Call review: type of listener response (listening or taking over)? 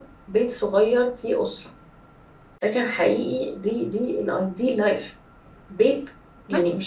listening